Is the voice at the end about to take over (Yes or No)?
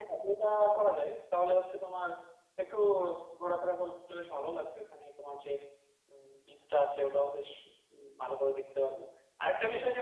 No